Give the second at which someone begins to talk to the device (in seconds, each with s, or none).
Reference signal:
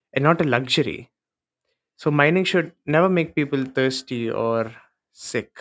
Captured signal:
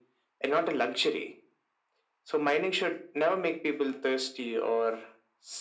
none